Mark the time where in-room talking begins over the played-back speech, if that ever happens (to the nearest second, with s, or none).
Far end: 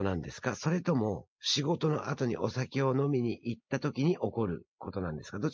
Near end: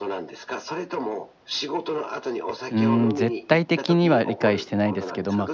3 s